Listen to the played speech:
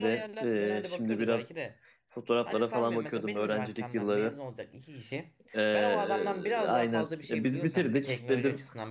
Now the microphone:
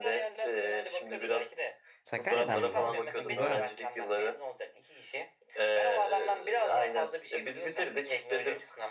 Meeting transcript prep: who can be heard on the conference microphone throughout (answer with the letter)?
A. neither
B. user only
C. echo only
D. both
D